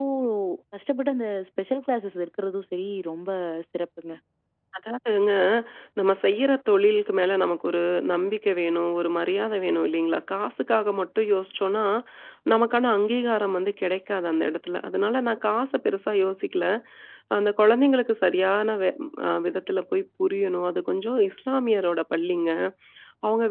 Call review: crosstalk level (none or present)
none